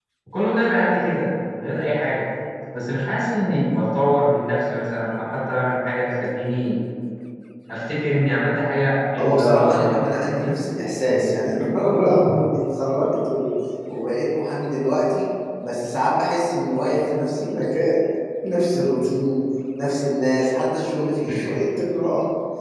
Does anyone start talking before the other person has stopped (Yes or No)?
Yes